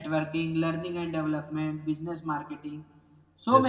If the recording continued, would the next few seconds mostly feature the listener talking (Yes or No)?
No